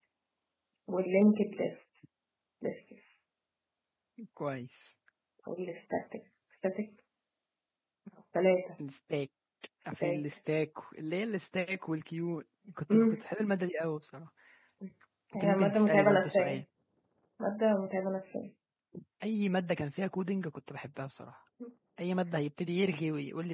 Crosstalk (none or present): present